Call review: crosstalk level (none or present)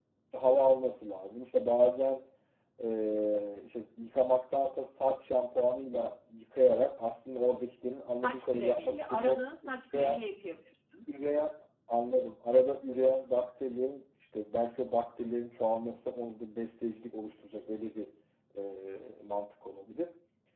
present